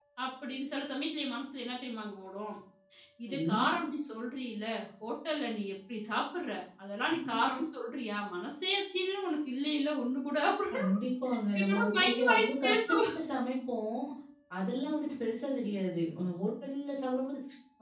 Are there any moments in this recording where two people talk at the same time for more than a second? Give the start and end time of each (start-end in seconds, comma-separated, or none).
11.6-13.1